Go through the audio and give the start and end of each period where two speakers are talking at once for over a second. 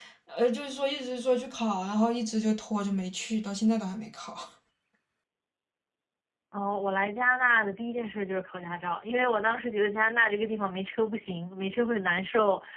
none

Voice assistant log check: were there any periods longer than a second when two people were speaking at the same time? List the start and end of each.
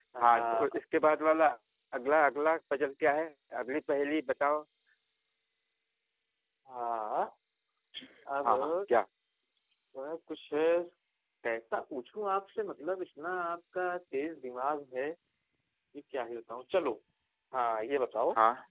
none

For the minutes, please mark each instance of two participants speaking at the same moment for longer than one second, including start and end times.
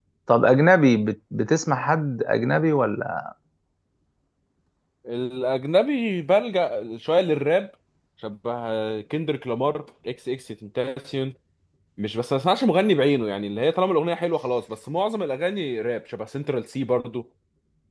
none

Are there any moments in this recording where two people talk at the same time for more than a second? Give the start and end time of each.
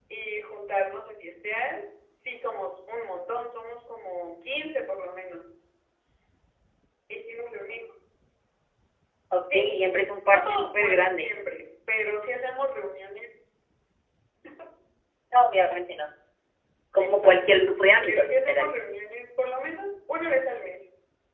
9.5-11.3, 17.0-18.9

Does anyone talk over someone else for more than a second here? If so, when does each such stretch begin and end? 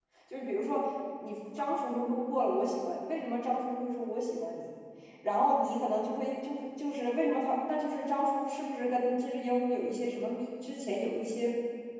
none

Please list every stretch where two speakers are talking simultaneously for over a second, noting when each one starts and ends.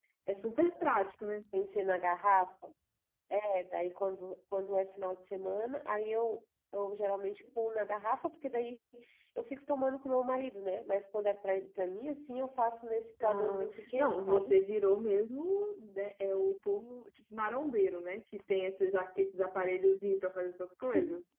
13.2-14.5

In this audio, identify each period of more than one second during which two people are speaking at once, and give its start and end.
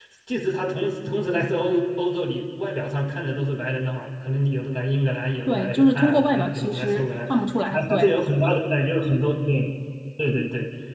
5.5-7.1

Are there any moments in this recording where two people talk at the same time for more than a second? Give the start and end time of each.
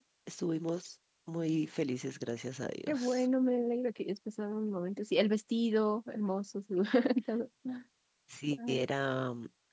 none

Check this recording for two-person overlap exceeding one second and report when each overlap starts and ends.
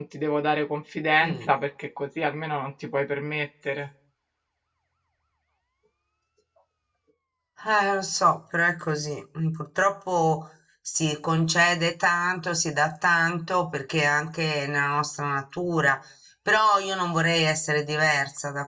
none

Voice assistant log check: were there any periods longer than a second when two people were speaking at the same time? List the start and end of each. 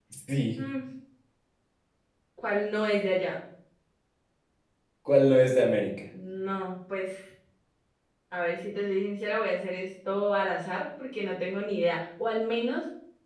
none

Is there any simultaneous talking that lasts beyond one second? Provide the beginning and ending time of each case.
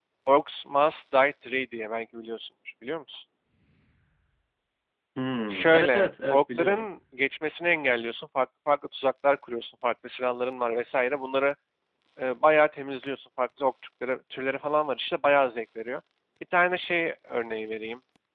5.5-6.9

